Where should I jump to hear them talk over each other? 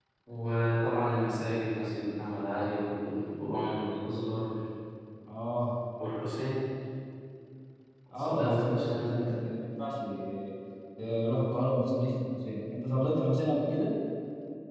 8 s

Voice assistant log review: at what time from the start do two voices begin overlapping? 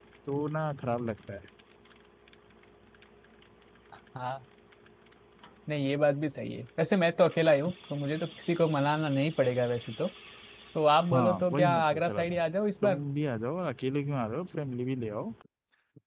11 s

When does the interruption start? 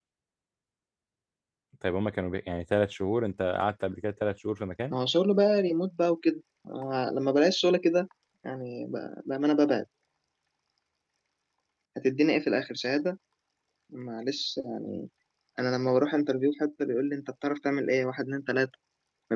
none

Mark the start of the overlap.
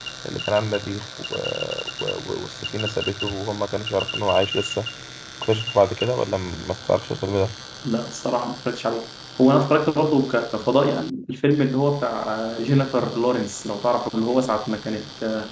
none

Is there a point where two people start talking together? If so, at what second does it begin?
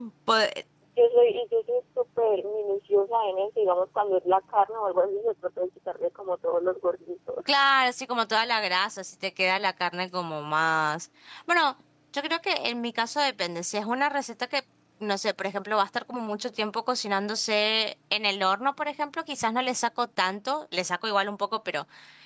none

